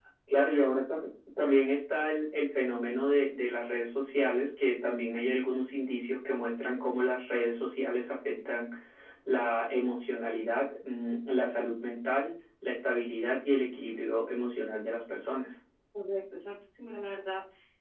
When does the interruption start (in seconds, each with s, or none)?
none